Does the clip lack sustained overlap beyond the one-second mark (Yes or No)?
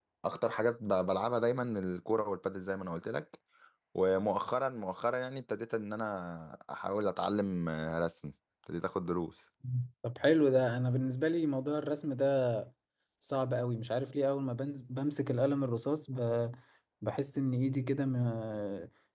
Yes